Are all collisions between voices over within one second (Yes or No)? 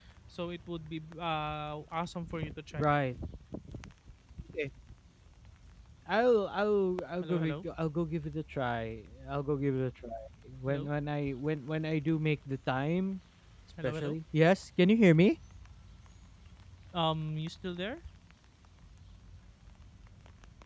Yes